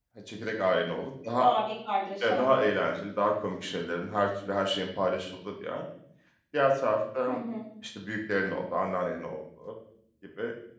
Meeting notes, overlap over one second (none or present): none